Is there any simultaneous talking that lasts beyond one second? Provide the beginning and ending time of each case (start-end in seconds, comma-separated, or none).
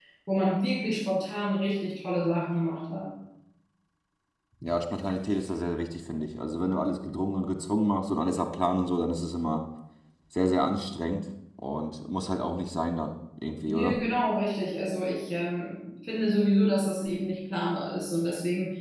none